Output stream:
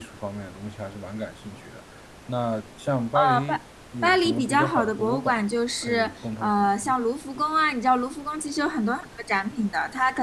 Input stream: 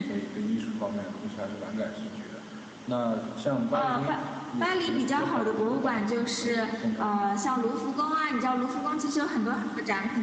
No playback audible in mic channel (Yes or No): No